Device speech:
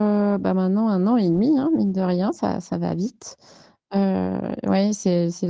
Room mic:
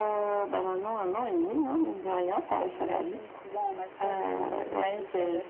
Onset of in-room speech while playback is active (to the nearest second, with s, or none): 3 s